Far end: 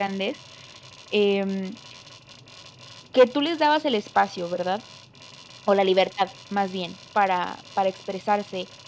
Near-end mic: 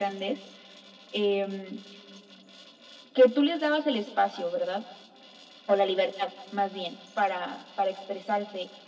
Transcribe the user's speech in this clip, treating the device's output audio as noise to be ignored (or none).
none